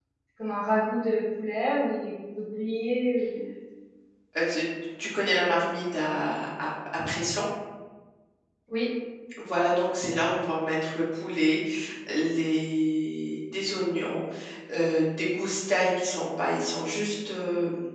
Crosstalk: none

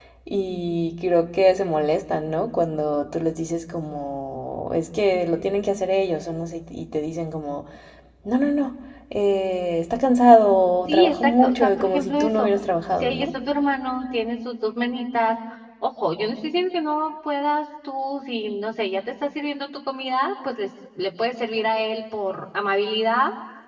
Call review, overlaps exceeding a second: present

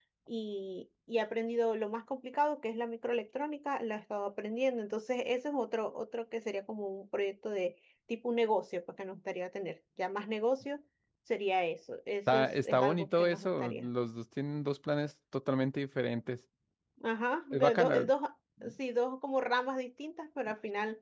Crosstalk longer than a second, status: present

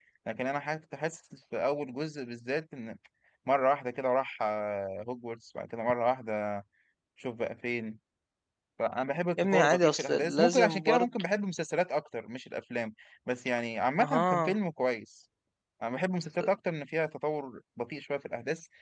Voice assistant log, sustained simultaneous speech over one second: present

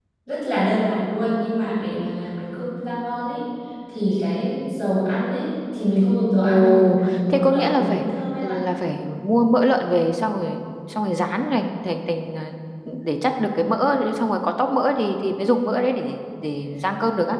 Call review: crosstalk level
present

